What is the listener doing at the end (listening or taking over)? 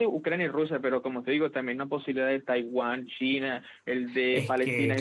taking over